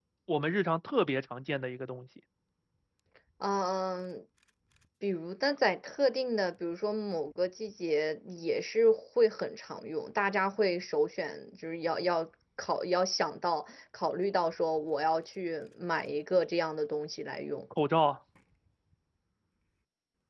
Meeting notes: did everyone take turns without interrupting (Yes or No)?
Yes